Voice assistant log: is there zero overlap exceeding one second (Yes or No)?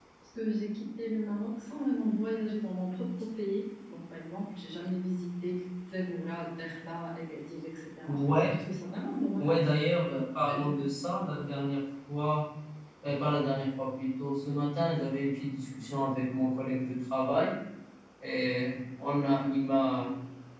Yes